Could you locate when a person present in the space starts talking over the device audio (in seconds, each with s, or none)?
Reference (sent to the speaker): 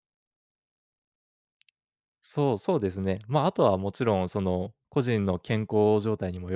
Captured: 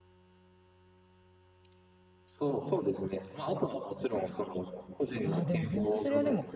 5.2 s